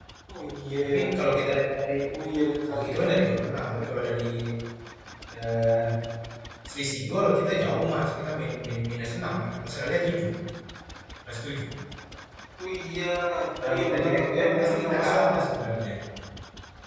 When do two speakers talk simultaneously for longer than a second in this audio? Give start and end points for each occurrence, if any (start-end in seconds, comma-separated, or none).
13.6-15.4